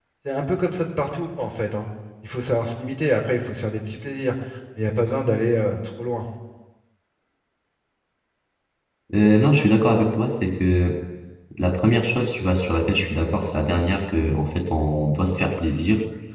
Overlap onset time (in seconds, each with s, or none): none